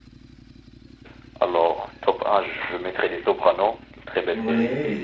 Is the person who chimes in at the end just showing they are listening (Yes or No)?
No